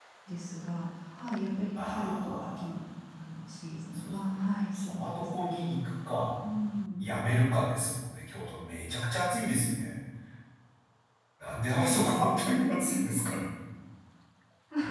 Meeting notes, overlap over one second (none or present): present